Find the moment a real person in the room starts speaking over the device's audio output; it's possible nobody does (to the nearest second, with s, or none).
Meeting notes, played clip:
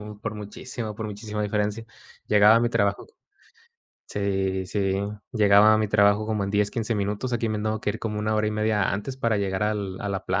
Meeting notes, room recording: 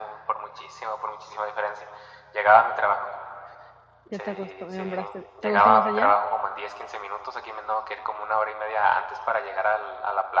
4 s